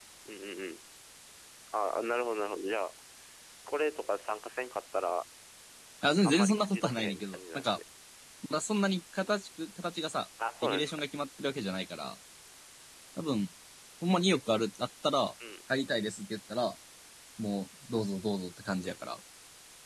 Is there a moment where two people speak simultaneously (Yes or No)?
Yes